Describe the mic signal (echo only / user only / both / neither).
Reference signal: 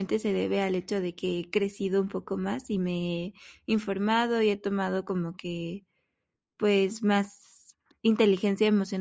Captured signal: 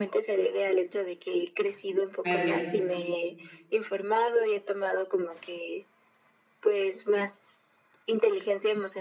both